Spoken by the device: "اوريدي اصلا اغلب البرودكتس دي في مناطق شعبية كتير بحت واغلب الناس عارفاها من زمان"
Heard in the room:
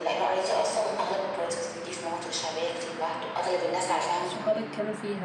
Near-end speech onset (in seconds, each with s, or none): 4.2 s